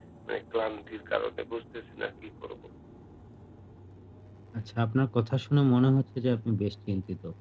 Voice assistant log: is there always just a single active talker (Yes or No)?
Yes